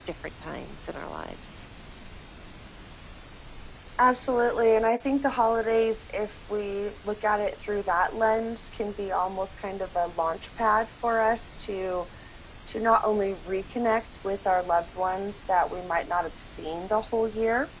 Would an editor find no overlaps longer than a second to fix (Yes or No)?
Yes